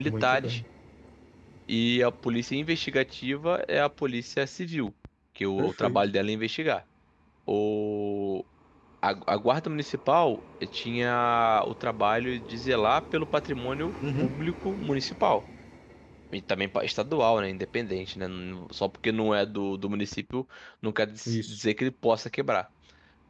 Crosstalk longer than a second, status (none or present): none